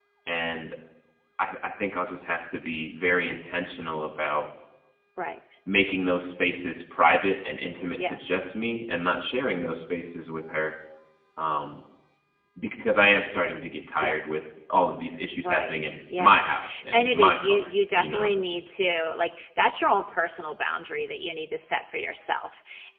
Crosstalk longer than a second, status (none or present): present